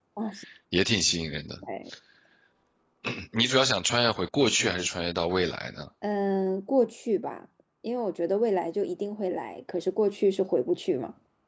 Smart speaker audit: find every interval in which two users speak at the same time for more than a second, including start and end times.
none

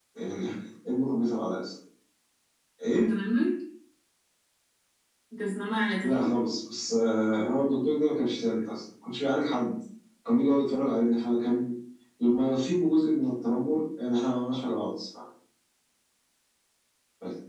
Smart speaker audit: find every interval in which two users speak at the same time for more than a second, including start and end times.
none

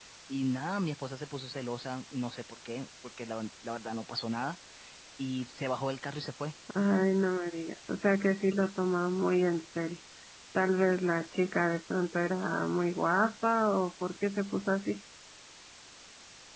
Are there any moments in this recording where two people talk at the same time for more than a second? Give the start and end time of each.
none

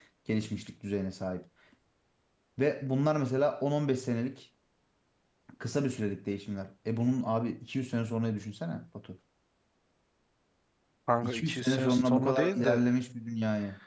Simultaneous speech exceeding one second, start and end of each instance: 11.2-12.8

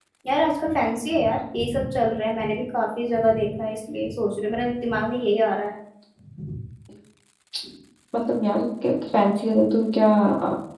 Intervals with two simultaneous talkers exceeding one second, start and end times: none

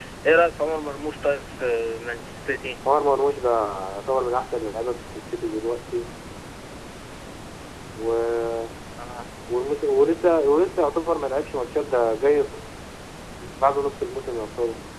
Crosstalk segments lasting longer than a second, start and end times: none

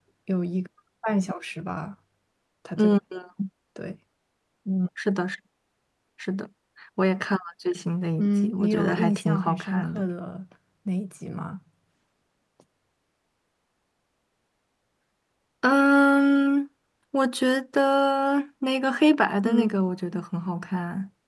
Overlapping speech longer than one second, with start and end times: 8.2-10.1

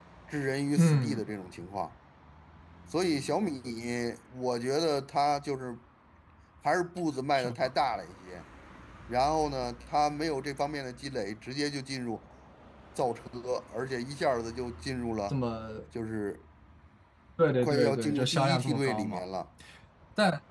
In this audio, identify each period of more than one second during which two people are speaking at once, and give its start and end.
17.6-19.2

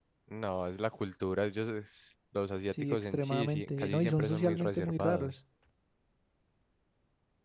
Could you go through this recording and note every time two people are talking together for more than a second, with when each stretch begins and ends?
2.7-5.3

